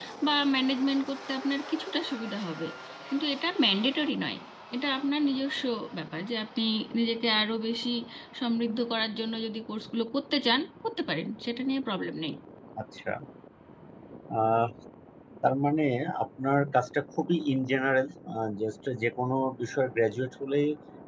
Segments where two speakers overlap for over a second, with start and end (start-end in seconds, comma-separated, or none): none